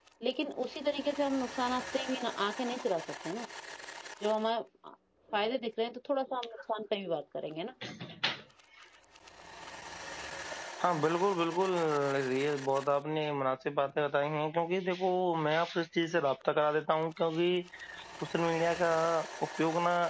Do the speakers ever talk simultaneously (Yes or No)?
No